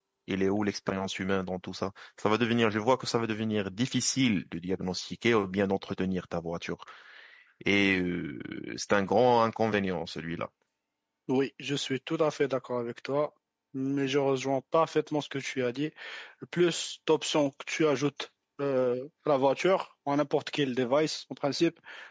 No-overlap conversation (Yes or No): Yes